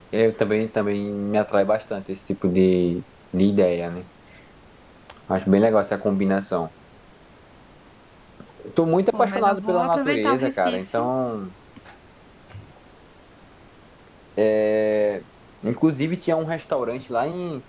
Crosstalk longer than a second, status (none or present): present